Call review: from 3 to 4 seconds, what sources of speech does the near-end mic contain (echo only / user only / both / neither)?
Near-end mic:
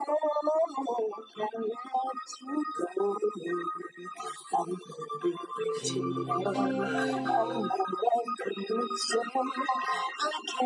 echo only